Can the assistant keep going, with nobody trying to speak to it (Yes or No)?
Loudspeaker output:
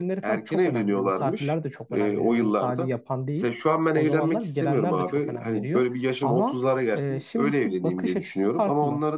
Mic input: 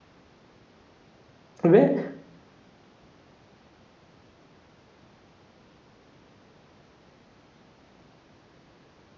No